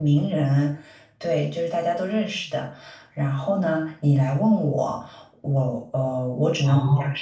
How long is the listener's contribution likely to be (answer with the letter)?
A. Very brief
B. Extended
A